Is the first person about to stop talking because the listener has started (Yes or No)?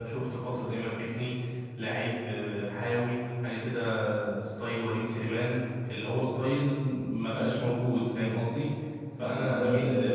Yes